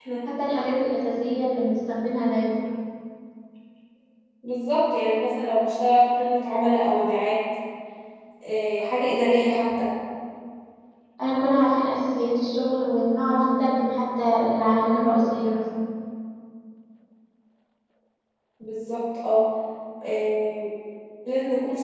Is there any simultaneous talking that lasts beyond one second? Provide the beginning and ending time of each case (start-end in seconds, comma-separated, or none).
none